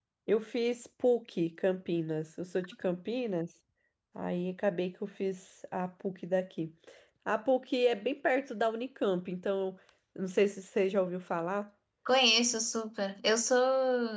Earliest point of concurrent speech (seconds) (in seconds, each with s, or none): none